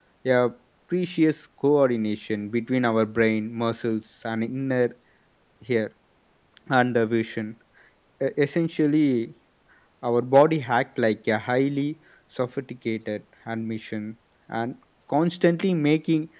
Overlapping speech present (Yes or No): No